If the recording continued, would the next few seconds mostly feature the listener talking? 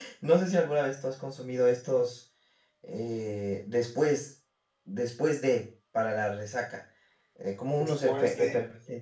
No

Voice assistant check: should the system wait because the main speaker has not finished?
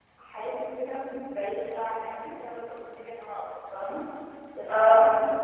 Yes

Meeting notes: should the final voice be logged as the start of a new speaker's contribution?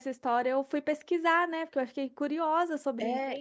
Yes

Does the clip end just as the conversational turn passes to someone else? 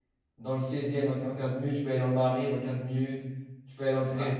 No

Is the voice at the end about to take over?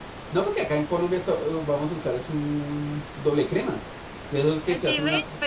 Yes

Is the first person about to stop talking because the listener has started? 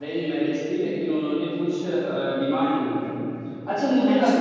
No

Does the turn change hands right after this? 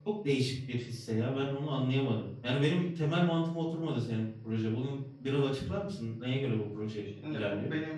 Yes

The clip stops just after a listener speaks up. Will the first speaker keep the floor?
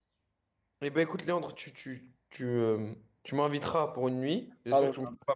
Yes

